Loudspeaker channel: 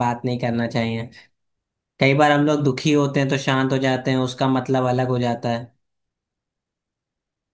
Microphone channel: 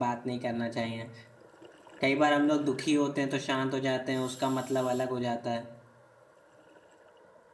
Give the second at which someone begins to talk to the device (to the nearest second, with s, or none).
none